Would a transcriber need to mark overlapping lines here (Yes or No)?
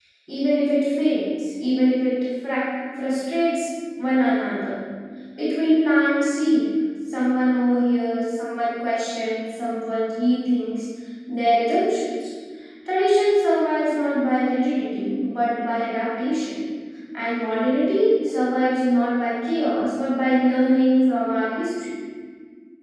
No